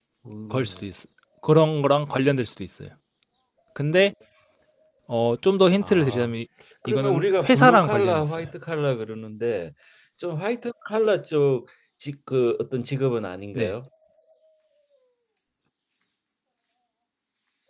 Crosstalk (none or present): present